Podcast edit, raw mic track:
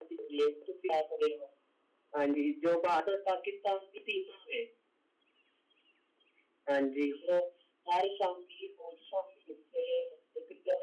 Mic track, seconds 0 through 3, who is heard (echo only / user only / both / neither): user only